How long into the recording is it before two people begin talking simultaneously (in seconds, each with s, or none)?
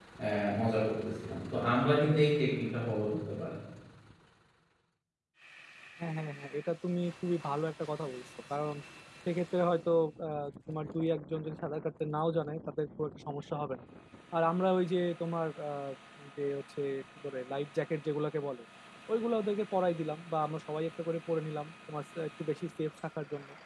none